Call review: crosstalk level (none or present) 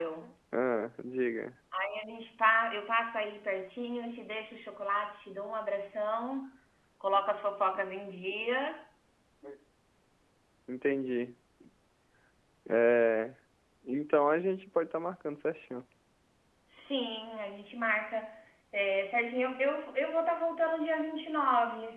none